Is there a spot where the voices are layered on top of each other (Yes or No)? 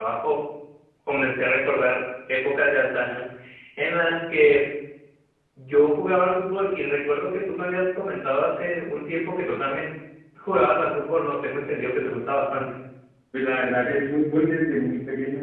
No